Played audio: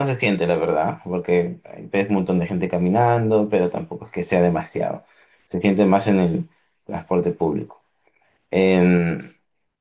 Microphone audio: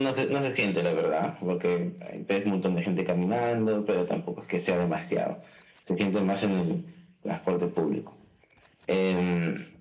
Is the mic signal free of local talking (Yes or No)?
Yes